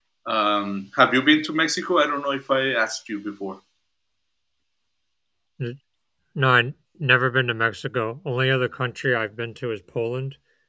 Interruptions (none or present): none